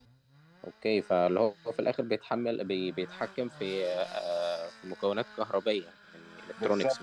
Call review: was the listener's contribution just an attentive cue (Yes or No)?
No